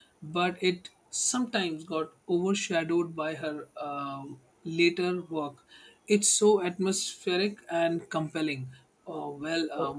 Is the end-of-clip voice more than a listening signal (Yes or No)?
No